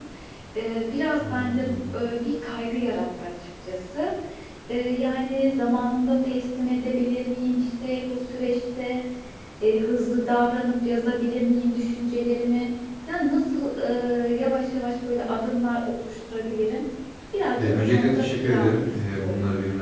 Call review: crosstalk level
present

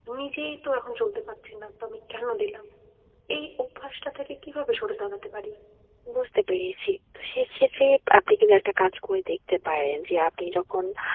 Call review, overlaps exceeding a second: none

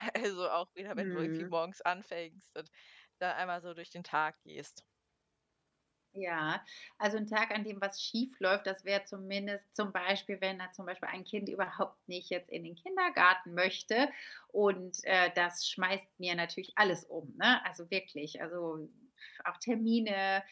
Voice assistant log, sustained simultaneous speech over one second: none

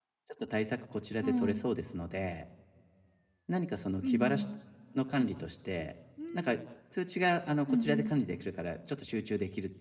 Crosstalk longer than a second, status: none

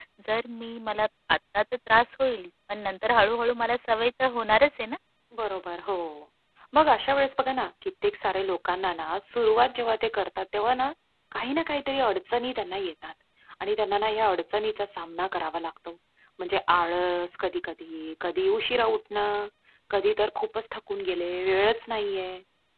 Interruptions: none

